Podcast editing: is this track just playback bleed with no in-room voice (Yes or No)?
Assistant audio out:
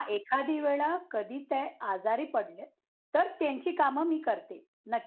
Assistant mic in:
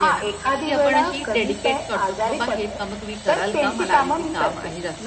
No